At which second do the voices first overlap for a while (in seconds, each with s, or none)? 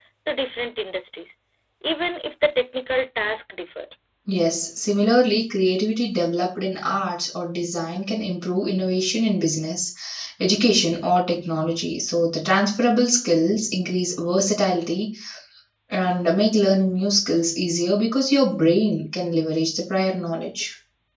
none